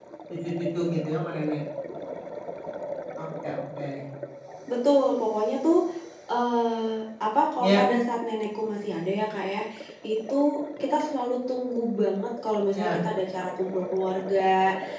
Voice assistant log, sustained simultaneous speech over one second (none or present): none